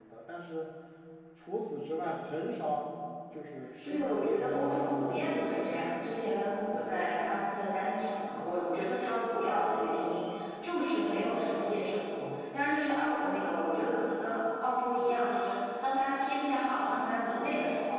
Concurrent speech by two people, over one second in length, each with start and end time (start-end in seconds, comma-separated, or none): 3.8-5.6